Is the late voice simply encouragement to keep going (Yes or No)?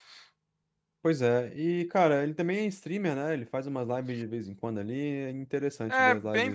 No